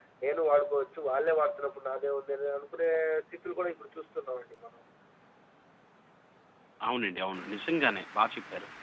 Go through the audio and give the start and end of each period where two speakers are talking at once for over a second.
none

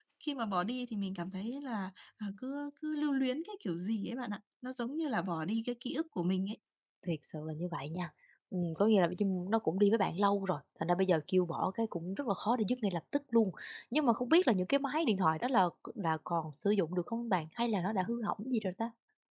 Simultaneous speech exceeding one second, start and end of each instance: none

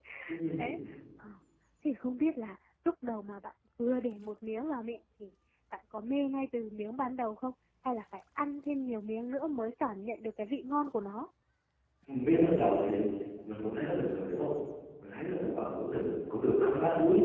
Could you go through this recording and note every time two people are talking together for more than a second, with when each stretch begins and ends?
none

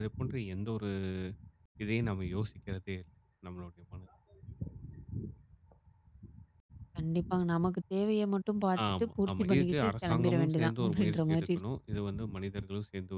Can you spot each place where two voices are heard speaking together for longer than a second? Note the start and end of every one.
9.0-11.6

